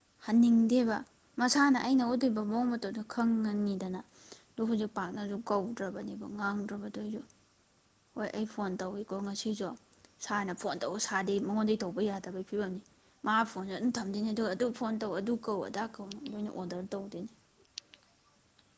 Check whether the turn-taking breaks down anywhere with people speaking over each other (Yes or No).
No